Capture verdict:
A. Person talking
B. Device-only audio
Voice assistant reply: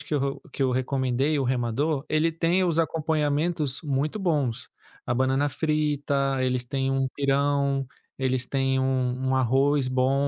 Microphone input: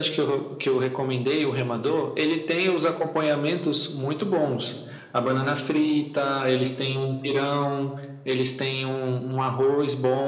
B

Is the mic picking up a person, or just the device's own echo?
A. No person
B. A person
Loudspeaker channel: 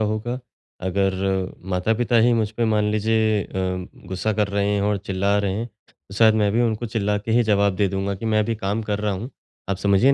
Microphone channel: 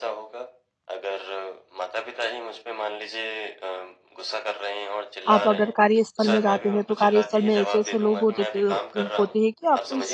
B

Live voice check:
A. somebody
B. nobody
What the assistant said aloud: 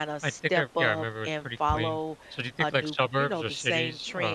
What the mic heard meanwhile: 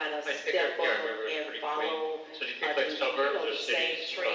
B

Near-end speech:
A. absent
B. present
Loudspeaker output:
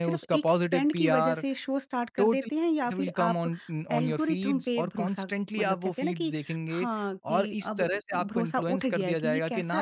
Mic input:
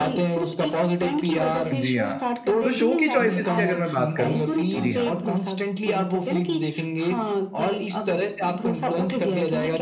B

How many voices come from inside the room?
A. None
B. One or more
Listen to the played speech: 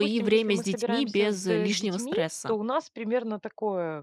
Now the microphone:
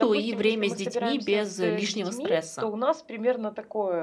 A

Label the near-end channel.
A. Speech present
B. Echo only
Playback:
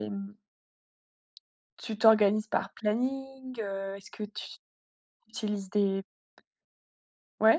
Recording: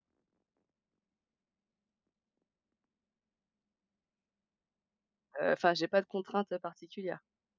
A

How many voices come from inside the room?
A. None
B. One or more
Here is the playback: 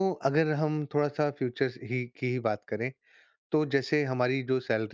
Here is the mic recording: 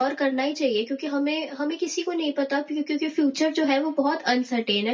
B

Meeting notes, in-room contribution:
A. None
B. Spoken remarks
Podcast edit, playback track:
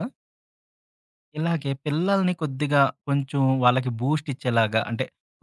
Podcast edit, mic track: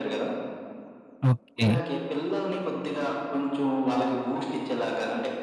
B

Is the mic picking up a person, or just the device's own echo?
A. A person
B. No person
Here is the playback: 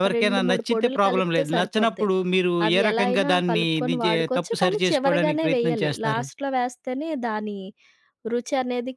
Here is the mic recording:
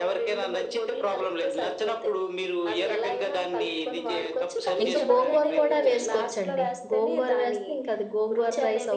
A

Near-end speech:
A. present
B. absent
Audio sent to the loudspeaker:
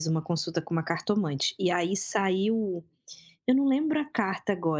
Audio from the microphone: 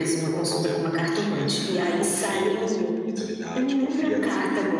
A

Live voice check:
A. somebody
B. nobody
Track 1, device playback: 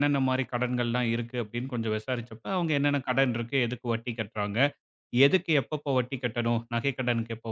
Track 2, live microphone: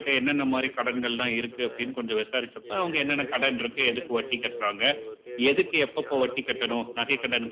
A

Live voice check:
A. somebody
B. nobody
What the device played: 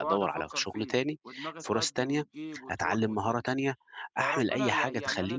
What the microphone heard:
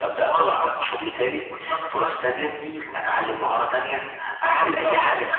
B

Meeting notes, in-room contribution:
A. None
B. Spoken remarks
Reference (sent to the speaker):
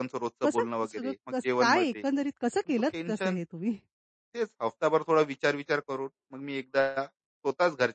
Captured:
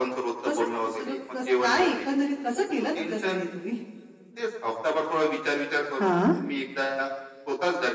B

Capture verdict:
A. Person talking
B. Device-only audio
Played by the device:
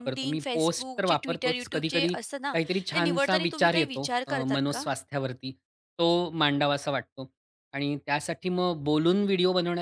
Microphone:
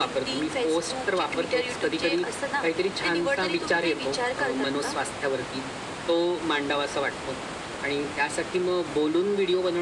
B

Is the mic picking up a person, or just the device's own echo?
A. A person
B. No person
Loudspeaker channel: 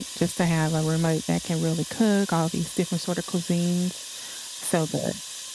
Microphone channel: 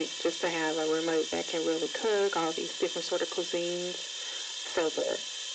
B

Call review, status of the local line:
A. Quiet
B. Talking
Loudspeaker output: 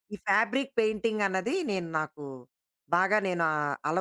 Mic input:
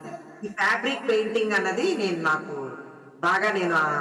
A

